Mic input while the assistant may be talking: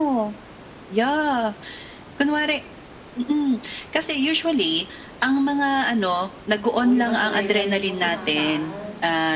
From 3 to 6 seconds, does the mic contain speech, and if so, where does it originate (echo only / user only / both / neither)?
echo only